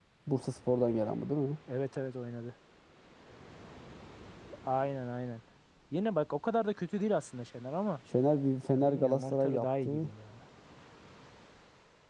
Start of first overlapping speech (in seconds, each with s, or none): 8.7 s